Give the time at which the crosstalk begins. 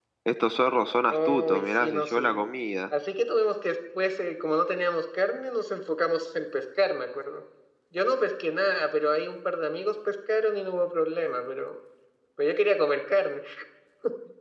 1.1 s

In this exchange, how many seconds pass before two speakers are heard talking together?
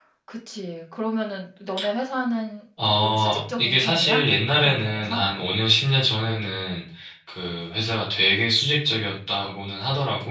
2.8 s

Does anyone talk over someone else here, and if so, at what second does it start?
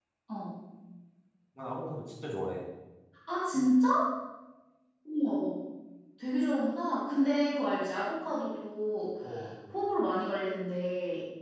none

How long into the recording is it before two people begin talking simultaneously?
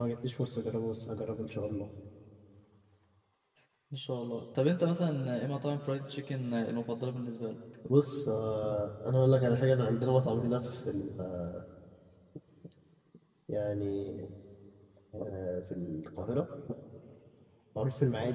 none

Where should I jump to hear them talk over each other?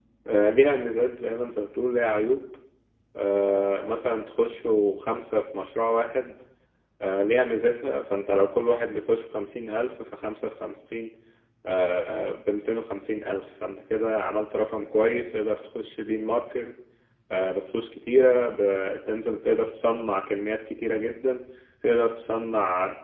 none

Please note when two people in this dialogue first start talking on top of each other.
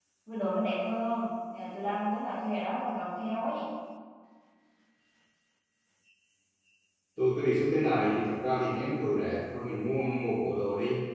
none

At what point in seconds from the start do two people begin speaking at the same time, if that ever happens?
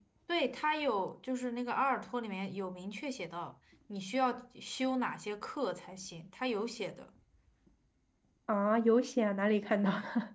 none

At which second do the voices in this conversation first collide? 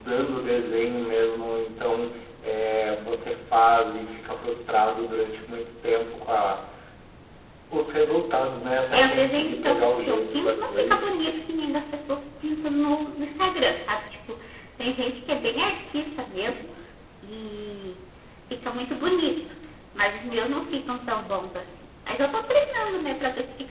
8.9 s

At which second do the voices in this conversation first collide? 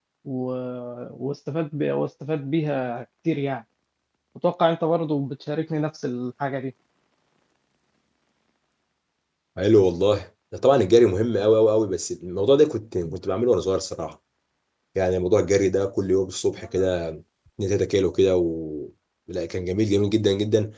none

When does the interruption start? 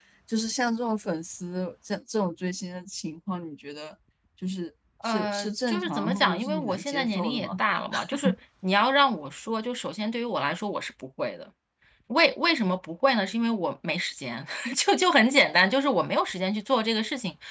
5.0 s

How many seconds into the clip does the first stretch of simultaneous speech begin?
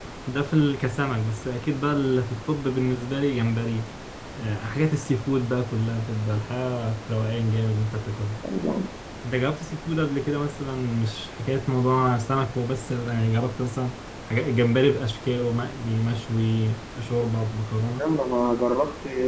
none

